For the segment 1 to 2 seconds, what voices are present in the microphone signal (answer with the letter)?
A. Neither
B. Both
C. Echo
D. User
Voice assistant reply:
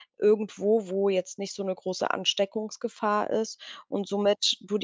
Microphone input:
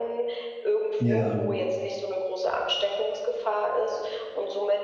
B